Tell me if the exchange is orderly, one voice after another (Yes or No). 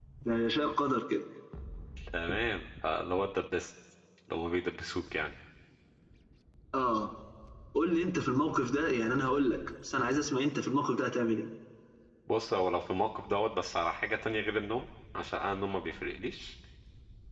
Yes